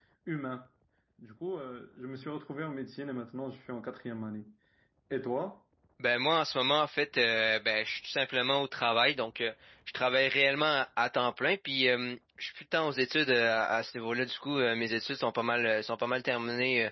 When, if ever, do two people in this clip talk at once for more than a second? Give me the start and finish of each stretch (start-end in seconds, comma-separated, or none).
none